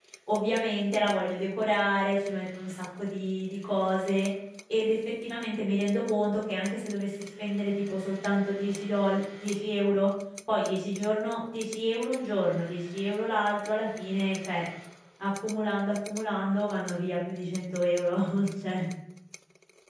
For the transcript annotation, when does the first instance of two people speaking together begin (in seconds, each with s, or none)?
none